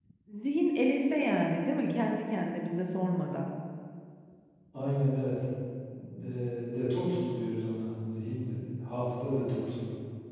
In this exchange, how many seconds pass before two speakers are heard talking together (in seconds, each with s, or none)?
none